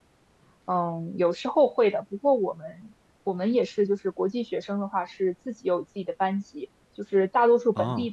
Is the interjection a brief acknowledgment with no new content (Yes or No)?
Yes